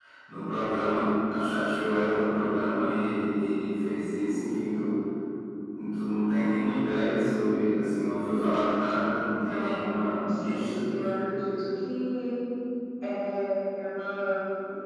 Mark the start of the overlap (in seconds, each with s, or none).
9.3 s